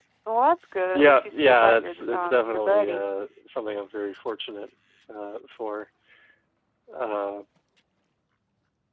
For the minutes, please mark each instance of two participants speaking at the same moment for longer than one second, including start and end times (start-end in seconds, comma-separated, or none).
0.9-3.1